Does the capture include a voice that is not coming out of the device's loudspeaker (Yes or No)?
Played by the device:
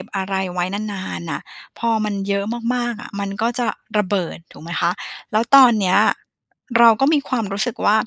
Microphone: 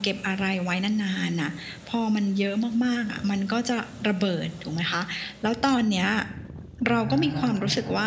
Yes